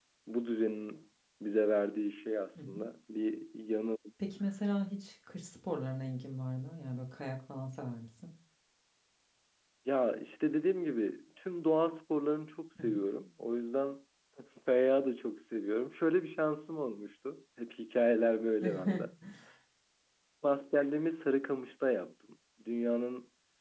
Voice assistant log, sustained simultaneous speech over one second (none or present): none